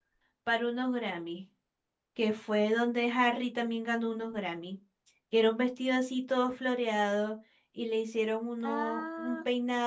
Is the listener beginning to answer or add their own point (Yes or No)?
No